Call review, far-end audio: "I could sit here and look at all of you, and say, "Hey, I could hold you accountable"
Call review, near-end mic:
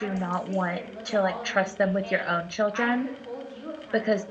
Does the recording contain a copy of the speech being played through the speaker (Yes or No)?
Yes